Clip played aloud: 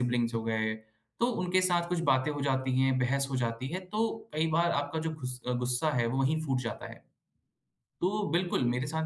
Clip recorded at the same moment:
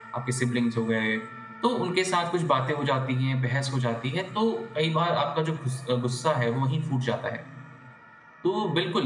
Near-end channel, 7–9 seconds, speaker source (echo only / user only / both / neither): echo only